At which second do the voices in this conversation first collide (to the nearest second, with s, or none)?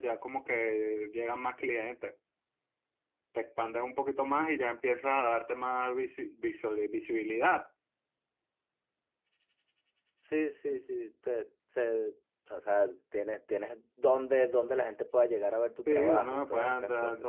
16 s